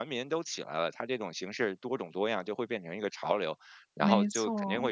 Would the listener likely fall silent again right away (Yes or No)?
Yes